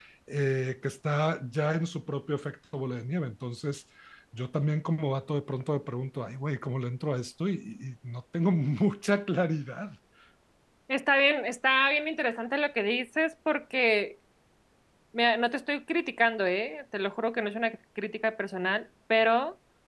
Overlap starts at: none

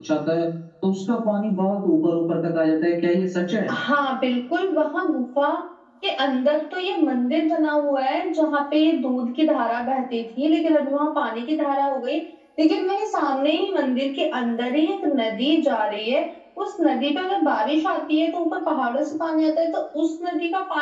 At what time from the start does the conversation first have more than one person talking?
none

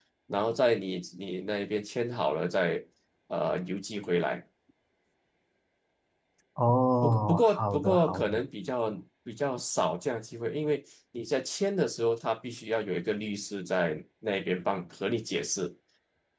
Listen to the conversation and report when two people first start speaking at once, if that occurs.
7.0 s

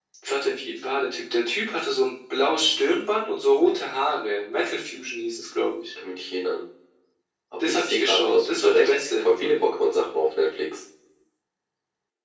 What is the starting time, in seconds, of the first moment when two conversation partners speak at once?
7.6 s

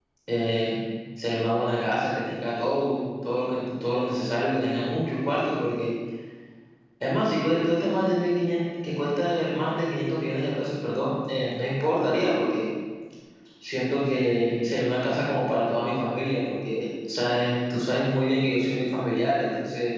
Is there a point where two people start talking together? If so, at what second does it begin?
none

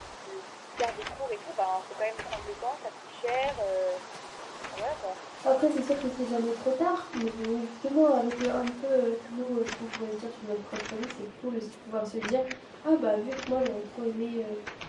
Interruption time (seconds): none

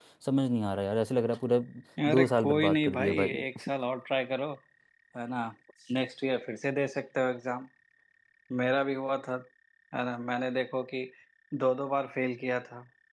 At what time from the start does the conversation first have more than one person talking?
2.1 s

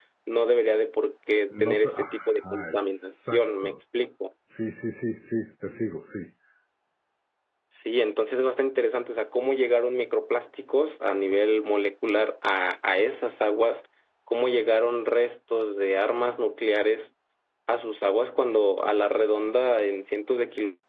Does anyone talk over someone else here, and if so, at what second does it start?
1.5 s

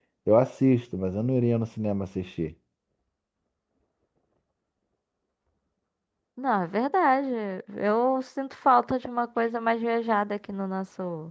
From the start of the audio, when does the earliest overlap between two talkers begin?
none

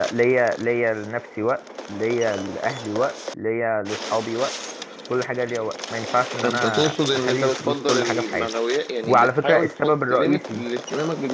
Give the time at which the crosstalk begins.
6.4 s

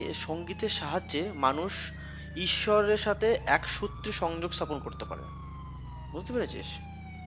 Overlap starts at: none

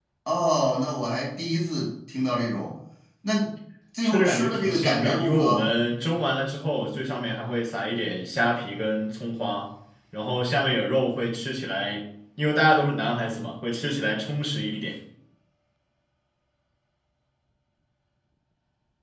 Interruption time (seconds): 4.0 s

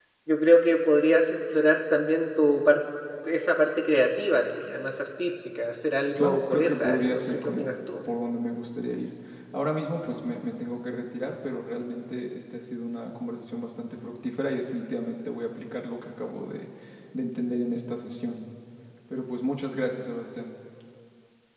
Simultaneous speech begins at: 6.2 s

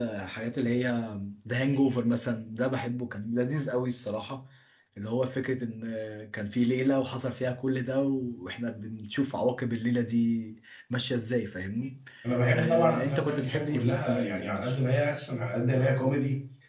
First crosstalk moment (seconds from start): 12.5 s

